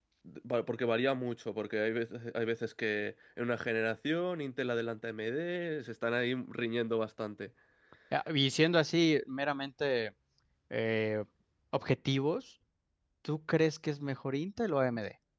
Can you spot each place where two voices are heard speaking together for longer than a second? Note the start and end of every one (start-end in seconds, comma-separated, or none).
none